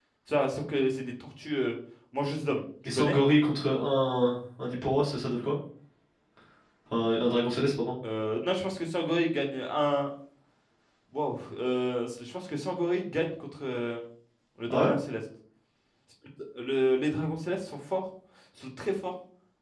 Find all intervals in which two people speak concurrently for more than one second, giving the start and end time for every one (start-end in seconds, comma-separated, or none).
none